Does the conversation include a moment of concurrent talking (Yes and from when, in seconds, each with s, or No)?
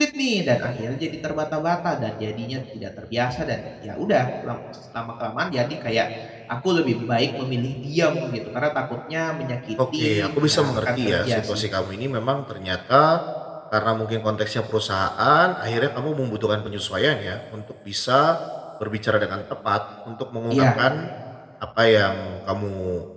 Yes, from 10.0 s